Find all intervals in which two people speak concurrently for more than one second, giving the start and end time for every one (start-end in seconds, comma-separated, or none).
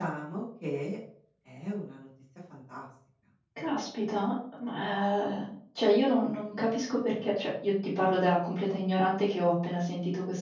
none